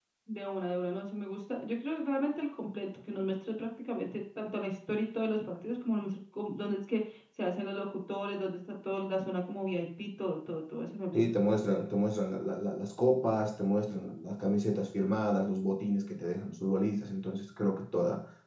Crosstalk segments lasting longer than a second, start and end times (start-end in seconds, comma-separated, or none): none